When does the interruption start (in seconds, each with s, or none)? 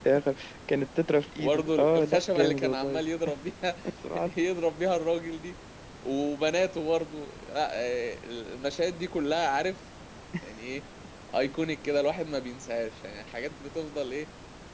1.4 s